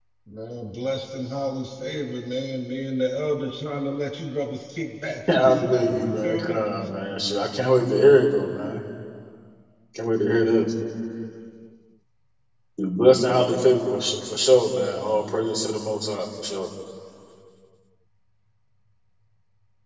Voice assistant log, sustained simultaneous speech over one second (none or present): present